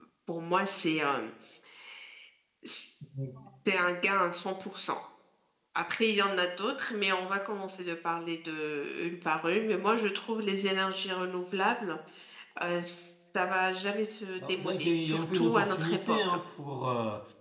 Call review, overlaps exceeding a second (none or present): present